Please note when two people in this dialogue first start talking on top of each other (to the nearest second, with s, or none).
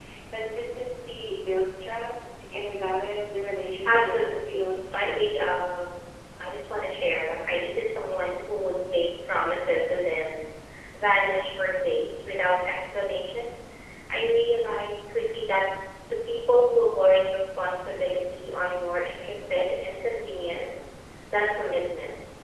4 s